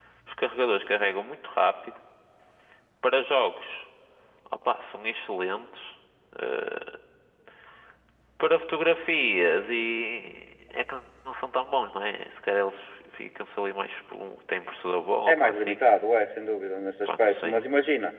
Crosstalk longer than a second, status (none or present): none